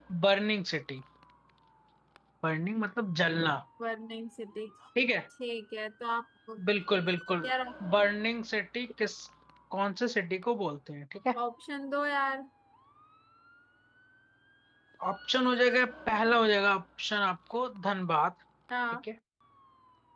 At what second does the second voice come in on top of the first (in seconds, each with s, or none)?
none